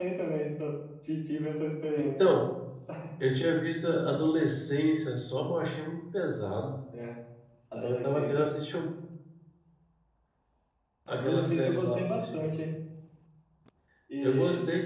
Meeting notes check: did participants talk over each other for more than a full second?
Yes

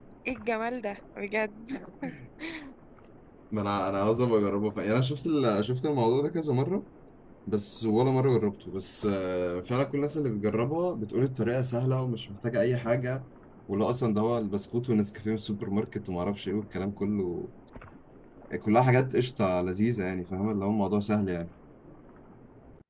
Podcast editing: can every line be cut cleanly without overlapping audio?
Yes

